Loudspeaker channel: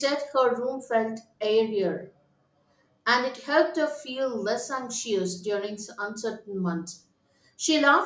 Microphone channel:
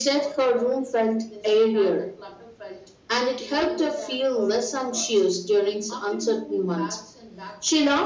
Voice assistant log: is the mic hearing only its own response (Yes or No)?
No